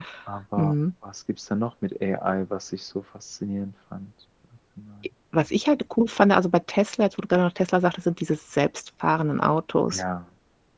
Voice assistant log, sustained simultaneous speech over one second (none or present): none